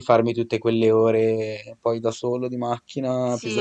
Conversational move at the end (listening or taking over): taking over